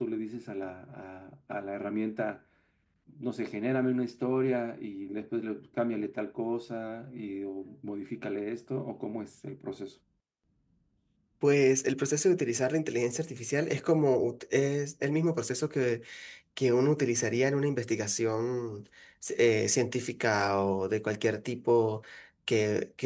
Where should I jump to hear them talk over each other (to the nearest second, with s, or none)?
none